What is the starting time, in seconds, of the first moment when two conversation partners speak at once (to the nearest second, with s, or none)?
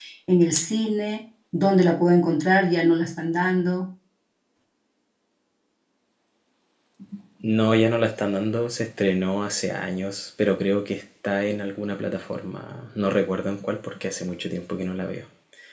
none